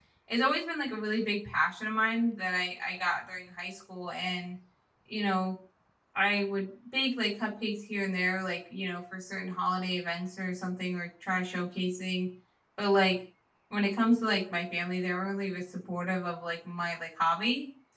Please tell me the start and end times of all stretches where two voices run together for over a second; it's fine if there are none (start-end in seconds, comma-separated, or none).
none